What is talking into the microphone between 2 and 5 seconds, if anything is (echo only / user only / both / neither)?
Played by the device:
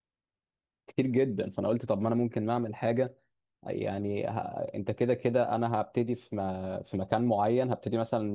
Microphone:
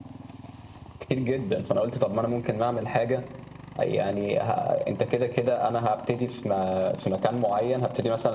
echo only